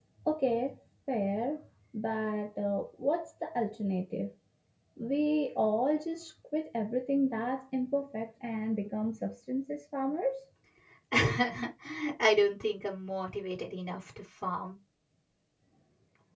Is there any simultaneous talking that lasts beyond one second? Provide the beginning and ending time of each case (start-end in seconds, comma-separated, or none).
none